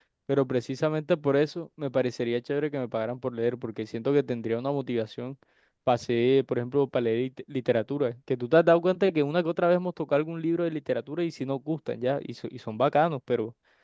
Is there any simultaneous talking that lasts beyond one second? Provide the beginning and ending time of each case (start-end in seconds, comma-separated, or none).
none